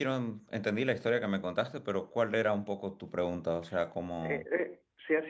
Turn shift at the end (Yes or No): Yes